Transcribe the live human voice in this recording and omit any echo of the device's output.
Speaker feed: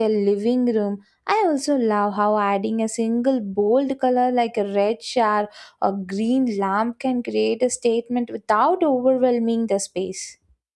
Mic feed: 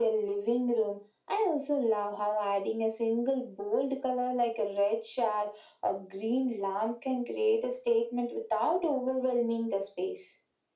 none

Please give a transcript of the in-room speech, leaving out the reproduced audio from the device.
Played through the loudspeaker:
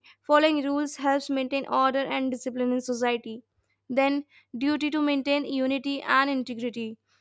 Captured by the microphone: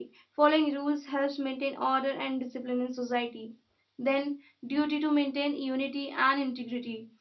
none

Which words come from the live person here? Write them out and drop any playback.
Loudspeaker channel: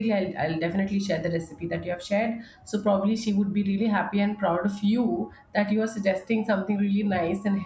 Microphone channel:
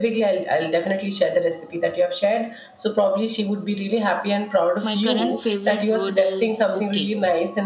my current favorite word is okay

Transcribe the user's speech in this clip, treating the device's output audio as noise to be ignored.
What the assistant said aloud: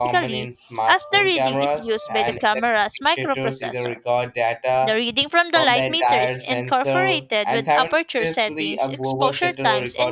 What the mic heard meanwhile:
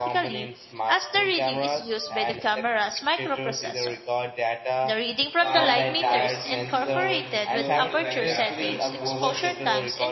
Fast shutter like freezes motion, slow shutter like captures motion,

